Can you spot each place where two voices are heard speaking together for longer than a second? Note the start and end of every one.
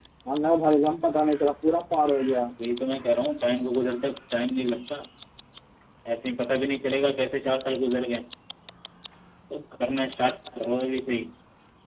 none

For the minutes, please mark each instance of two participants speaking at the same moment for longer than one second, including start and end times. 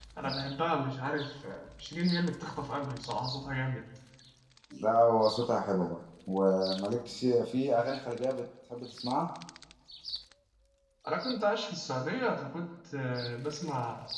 none

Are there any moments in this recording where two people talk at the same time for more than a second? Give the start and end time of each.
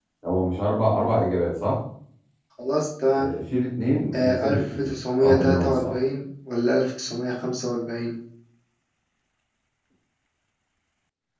4.1-5.9

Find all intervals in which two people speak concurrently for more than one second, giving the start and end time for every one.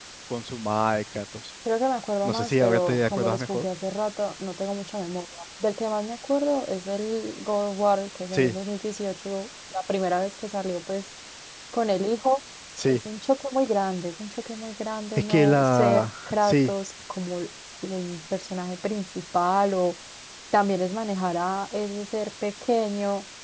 2.2-3.7, 15.3-16.7

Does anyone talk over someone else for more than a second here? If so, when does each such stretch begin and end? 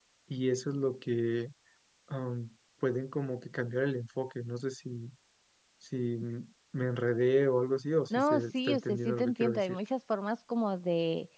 8.1-9.8

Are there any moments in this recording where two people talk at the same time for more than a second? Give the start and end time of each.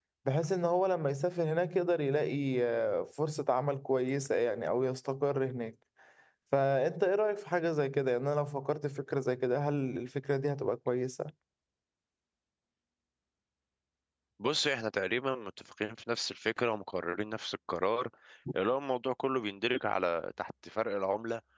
none

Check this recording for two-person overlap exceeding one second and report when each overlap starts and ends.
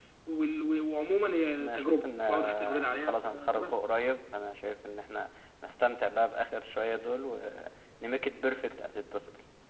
1.6-3.9

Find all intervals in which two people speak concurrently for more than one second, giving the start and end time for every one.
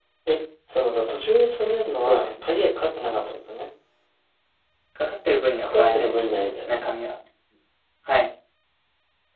5.6-6.8

